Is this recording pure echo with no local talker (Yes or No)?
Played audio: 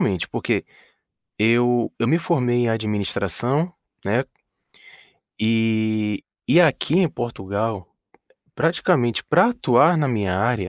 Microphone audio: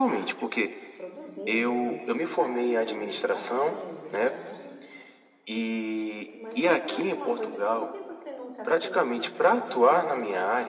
No